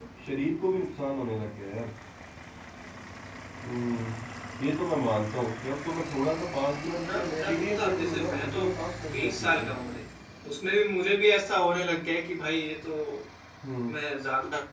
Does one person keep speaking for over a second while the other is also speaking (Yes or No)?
Yes